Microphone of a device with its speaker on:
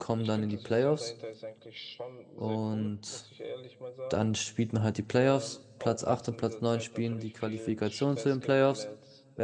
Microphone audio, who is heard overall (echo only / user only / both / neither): both